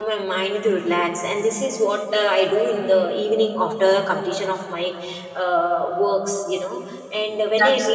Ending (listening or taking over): listening